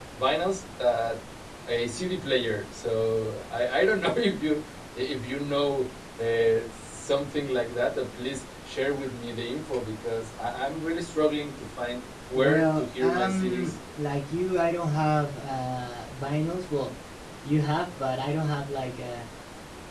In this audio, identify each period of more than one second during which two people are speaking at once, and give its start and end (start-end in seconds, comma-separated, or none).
12.3-13.7